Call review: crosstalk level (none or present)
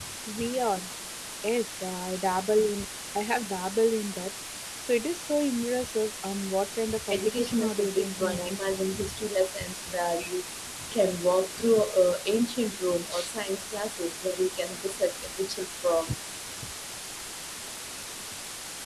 present